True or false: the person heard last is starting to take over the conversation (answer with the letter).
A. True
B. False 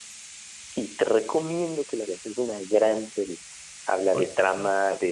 B